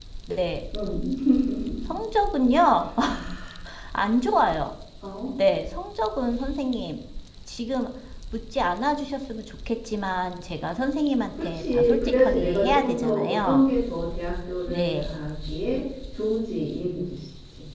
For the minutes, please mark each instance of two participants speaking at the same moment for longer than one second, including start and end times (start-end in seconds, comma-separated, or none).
11.4-13.6